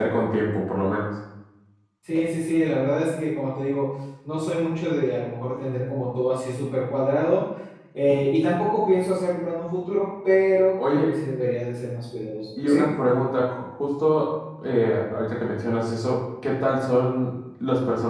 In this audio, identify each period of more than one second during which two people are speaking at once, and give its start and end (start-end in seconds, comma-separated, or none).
none